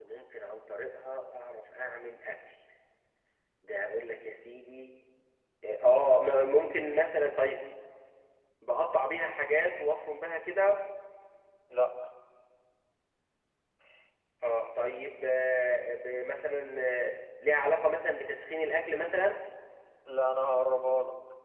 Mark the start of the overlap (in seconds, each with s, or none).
none